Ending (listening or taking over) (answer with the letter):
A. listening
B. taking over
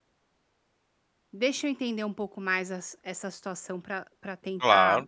B